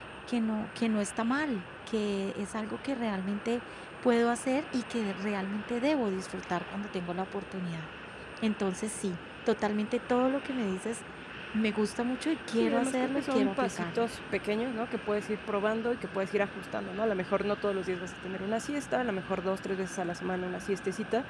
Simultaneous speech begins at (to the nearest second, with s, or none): 13 s